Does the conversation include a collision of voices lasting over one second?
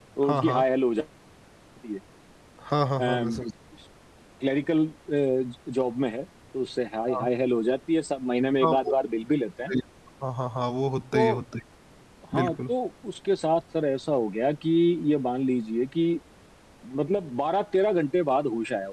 No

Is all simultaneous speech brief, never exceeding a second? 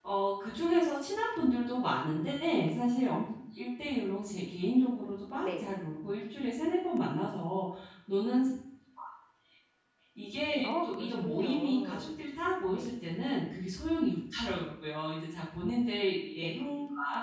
No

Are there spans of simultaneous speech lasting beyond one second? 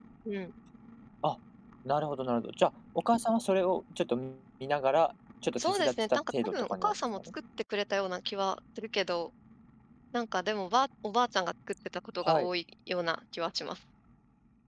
Yes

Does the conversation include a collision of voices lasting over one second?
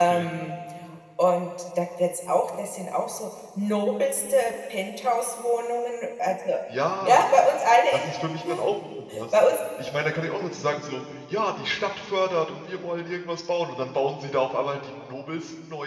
No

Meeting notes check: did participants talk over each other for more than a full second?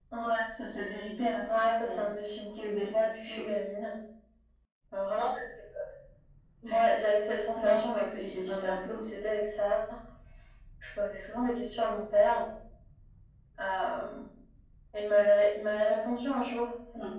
Yes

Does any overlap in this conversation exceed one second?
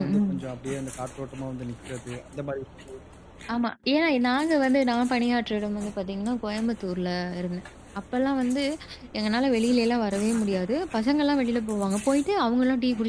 No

